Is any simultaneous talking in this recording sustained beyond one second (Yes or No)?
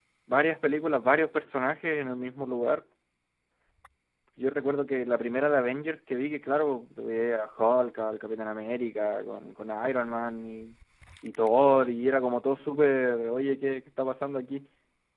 No